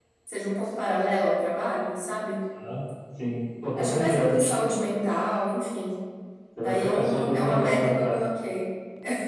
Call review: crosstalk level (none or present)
present